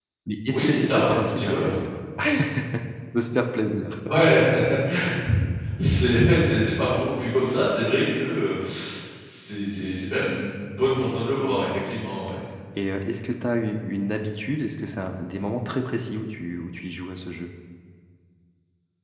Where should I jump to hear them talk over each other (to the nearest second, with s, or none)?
1 s